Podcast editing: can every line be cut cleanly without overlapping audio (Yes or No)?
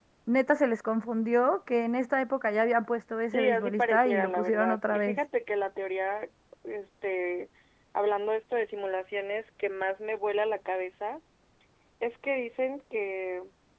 No